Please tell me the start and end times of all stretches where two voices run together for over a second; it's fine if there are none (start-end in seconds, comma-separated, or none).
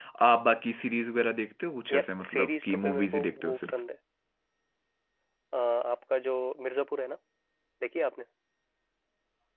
1.9-3.7